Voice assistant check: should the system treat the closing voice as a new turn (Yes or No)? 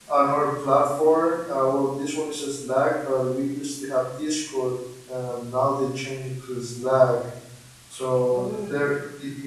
No